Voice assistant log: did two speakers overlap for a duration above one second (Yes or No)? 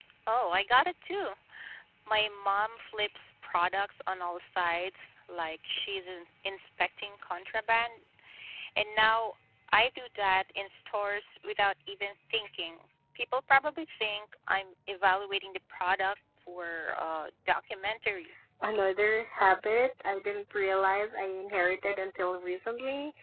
No